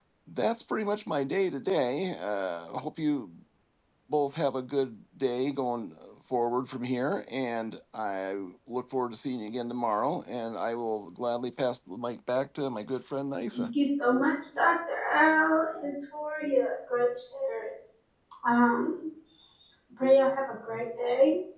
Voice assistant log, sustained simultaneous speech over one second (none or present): none